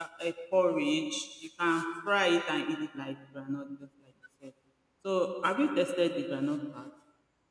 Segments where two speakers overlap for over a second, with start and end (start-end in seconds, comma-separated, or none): none